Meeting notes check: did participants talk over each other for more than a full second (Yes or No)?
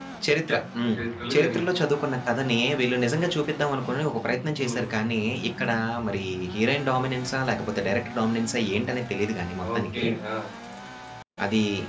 No